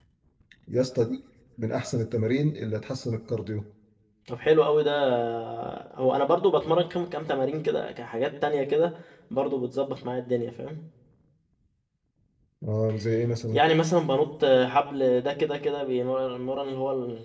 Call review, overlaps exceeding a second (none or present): none